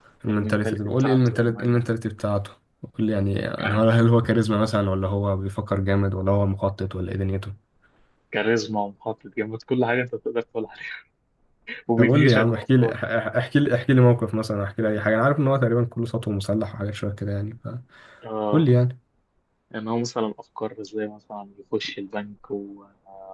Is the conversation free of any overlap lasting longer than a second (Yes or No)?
No